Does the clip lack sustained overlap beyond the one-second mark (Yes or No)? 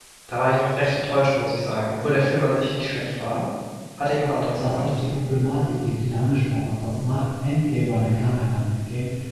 Yes